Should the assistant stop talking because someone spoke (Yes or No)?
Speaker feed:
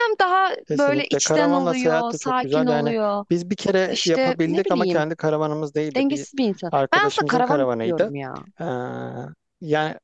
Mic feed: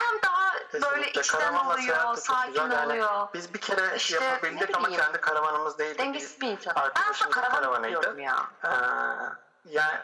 No